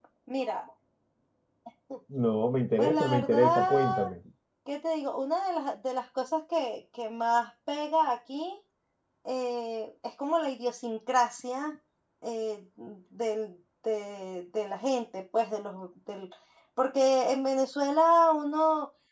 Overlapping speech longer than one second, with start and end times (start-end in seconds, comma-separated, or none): 2.8-4.0